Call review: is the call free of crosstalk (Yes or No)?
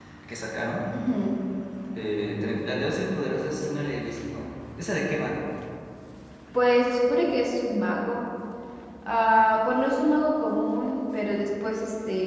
Yes